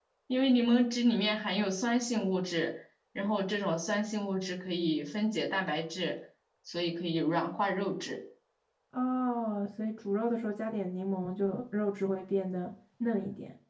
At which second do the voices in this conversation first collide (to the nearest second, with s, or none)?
none